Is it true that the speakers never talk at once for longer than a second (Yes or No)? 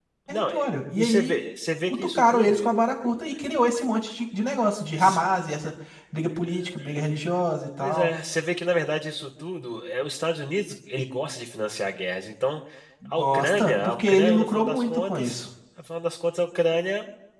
No